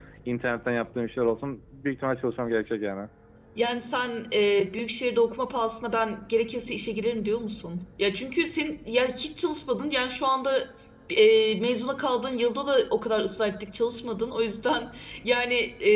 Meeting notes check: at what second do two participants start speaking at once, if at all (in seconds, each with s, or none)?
none